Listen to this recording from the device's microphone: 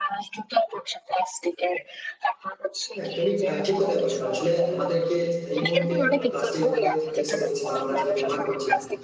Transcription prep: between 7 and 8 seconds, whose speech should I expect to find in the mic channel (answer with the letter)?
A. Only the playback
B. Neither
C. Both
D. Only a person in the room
C